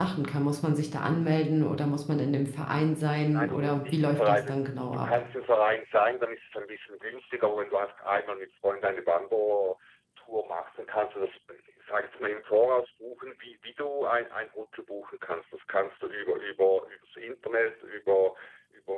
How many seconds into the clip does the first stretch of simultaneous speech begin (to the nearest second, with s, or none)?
3 s